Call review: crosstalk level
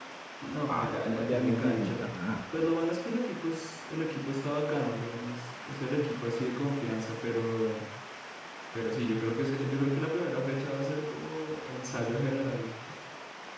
present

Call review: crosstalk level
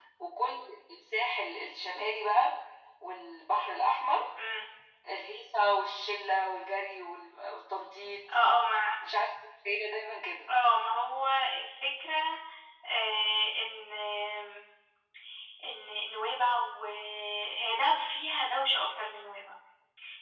none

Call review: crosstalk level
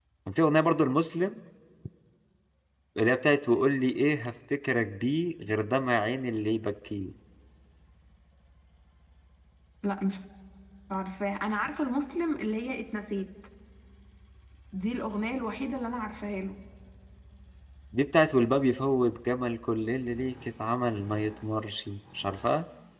none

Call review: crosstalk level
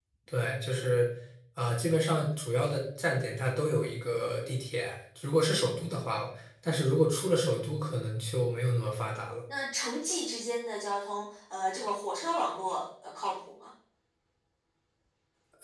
none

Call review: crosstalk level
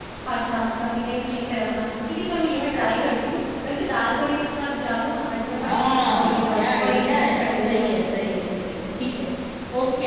present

